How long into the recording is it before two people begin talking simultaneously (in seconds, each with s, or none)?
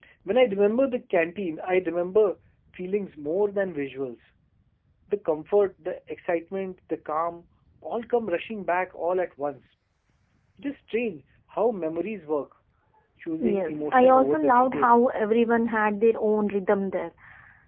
13.6 s